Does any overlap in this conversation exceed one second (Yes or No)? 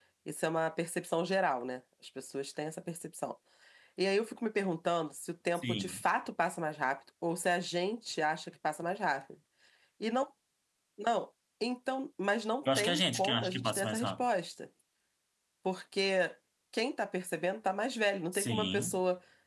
Yes